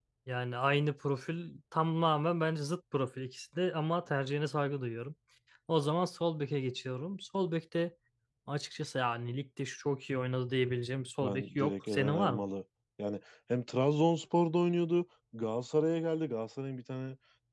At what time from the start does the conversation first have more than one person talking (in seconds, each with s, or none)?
11.2 s